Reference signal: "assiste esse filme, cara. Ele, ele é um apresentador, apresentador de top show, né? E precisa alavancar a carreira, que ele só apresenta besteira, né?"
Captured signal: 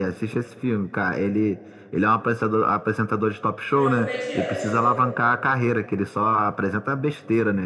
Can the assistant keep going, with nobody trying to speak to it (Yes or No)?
No